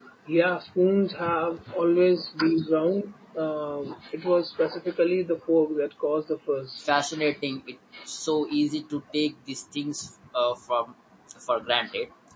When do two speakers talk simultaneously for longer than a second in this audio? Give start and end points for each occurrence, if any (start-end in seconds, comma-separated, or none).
none